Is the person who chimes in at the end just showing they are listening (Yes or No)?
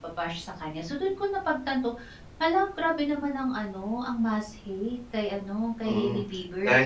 No